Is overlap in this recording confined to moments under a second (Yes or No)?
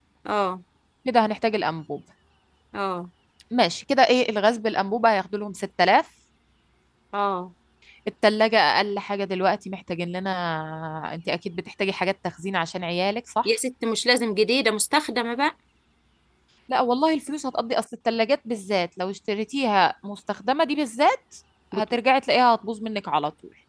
Yes